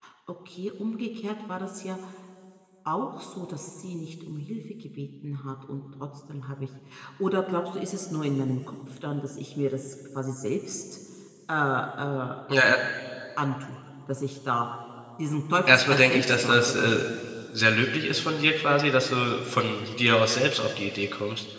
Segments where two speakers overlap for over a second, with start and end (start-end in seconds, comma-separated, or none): 15.7-17.0